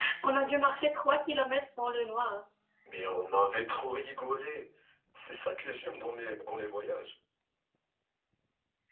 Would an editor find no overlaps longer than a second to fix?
Yes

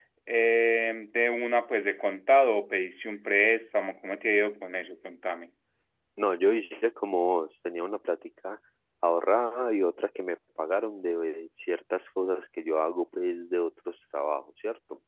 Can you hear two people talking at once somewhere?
No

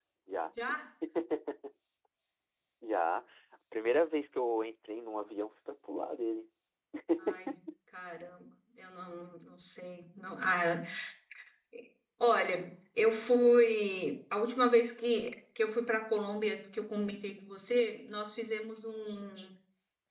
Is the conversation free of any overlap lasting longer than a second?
Yes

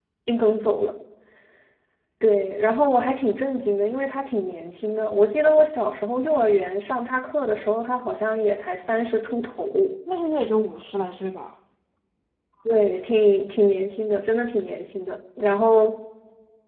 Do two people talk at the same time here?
No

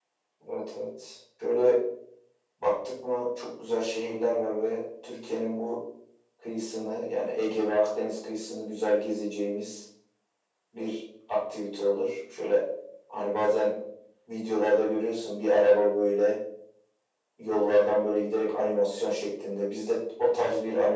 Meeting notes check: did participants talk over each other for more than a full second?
No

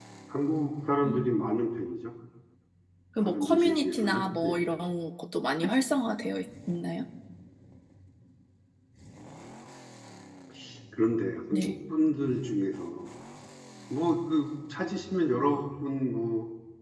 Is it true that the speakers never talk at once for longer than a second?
No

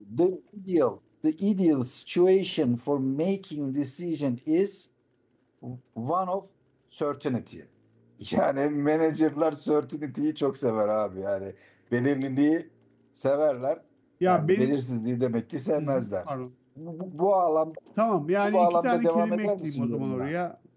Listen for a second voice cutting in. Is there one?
Yes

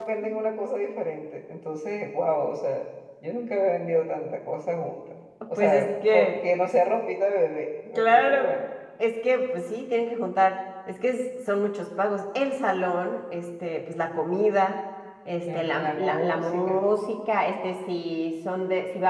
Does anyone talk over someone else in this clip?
Yes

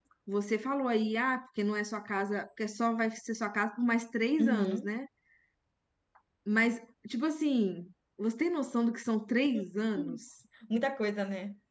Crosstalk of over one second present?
No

